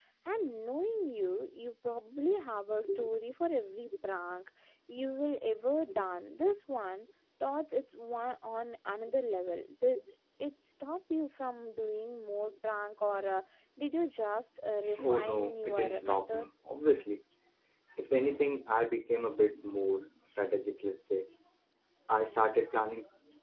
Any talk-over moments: Yes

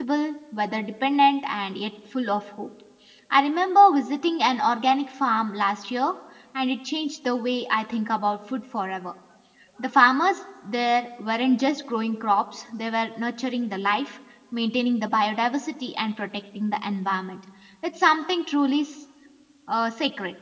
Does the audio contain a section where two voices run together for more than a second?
No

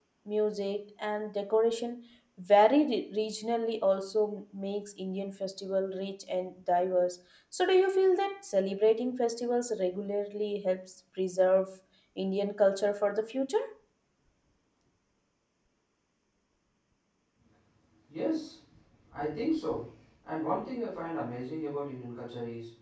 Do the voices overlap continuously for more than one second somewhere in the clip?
No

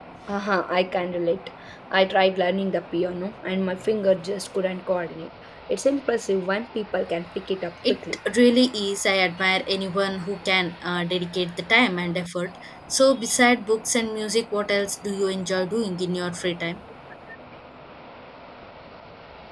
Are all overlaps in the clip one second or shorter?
Yes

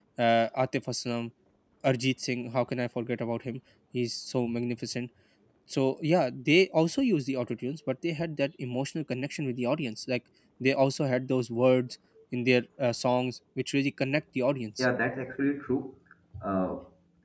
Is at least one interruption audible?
No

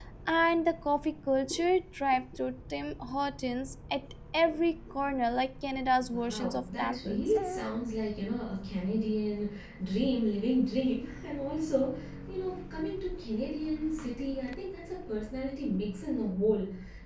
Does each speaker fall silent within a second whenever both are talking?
No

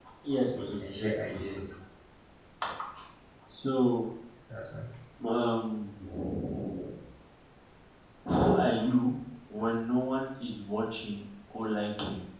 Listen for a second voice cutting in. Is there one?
Yes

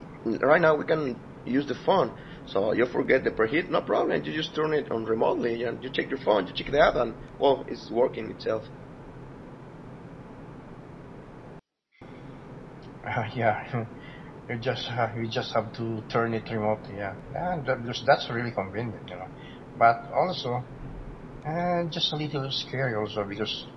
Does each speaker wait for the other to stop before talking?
Yes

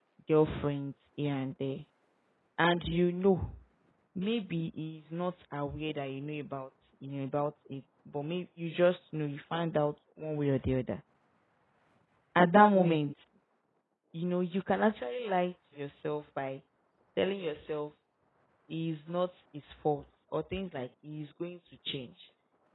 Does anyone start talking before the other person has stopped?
No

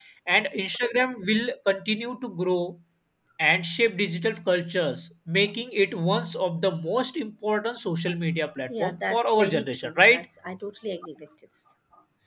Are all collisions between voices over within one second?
No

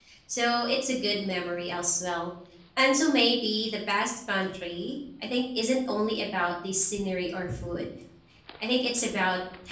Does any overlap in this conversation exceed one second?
No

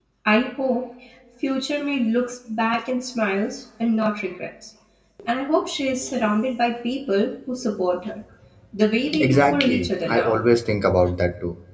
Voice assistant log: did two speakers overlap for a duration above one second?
Yes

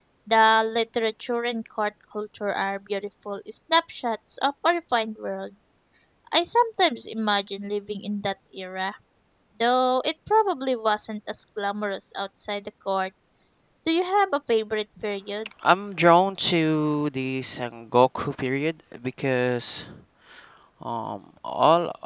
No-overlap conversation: Yes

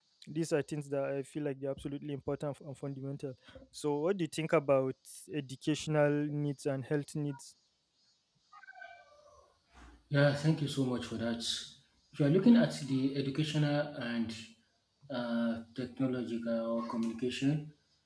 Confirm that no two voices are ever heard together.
Yes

